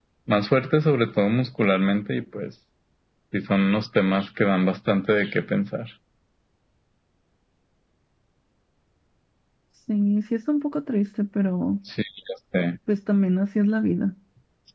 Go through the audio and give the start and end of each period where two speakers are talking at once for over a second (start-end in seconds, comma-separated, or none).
none